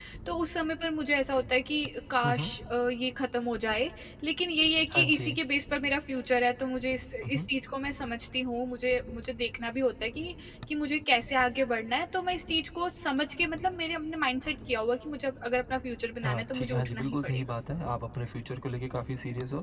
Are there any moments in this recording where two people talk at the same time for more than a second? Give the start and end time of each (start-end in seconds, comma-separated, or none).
16.2-17.4